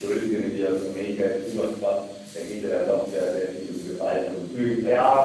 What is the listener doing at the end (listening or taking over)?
taking over